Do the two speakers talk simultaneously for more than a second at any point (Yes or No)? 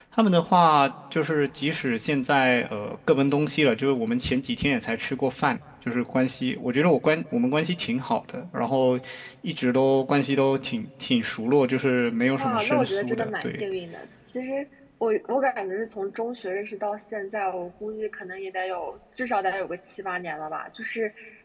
Yes